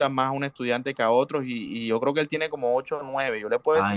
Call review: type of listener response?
taking over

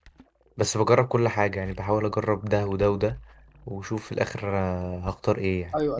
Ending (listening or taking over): taking over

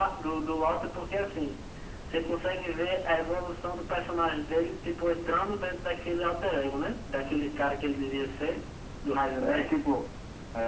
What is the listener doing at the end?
taking over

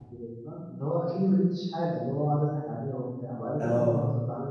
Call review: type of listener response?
listening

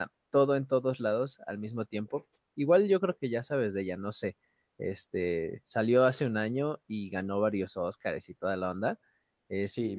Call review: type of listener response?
taking over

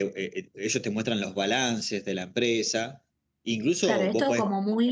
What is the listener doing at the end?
taking over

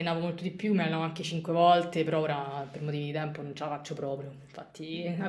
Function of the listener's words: listening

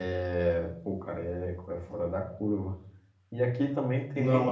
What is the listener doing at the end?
listening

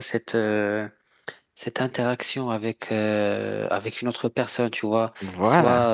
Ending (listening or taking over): listening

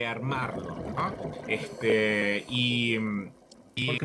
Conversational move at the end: taking over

